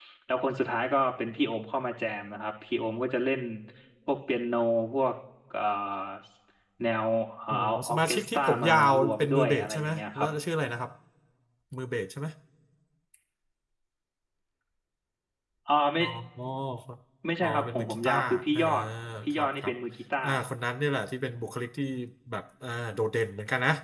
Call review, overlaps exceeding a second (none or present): present